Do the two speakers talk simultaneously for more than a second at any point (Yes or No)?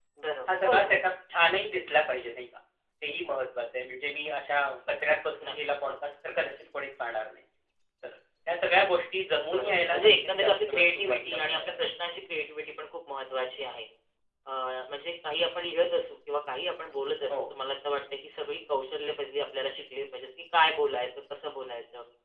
Yes